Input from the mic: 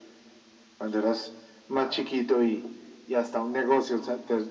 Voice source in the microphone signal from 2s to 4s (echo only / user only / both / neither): echo only